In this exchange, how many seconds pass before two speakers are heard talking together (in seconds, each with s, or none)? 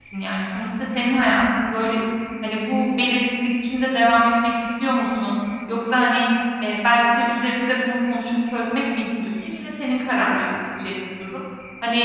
none